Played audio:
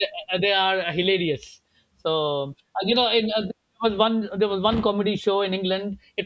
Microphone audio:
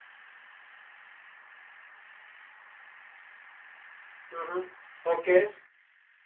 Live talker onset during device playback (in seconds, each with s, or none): 4.4 s